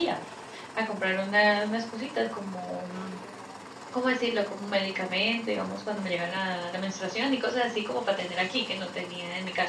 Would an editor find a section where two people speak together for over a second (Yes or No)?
No